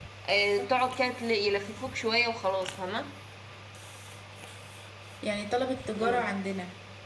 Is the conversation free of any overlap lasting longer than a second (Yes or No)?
Yes